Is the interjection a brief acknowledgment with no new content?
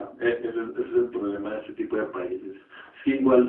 Yes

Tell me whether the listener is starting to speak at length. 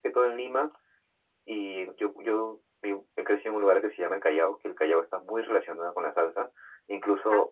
No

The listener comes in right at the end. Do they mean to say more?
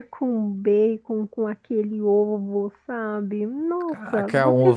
Yes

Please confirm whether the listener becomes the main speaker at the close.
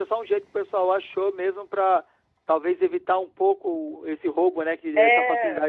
Yes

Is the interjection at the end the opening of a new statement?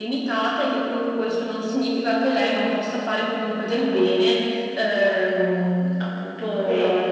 No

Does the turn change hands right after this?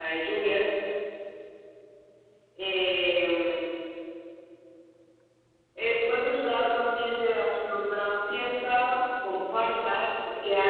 No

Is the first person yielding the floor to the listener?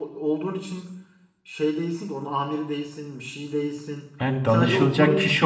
Yes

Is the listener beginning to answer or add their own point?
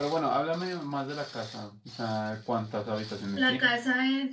Yes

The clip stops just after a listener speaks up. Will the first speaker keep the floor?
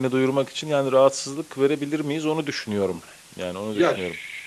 No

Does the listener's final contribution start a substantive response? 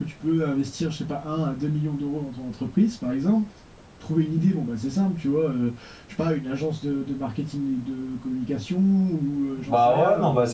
Yes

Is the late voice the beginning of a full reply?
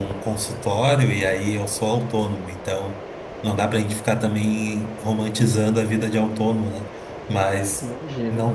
No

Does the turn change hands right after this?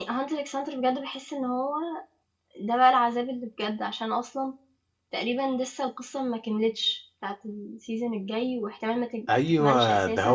Yes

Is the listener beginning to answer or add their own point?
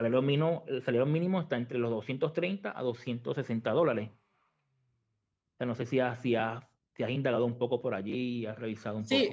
Yes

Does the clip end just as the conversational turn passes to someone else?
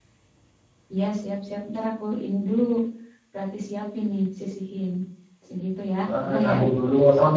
Yes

